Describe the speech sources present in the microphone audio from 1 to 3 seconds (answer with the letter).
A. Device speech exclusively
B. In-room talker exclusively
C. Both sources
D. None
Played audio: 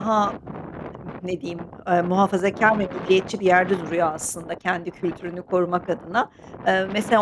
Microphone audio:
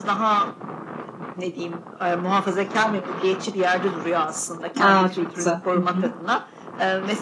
A